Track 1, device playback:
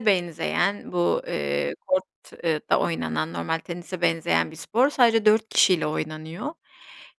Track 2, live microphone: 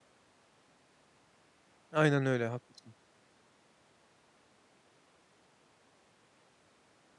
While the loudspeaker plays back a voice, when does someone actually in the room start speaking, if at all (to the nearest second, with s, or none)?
2 s